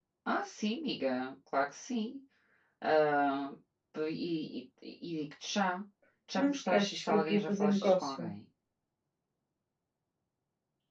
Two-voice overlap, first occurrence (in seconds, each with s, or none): 6.4 s